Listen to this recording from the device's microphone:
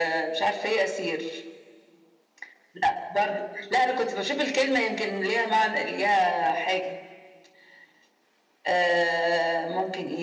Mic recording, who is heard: echo only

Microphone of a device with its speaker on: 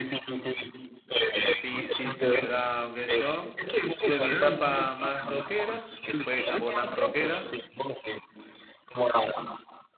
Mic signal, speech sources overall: both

